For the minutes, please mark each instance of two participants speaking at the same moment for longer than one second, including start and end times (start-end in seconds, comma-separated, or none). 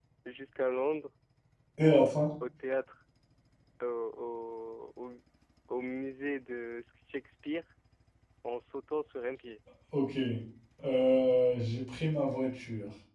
none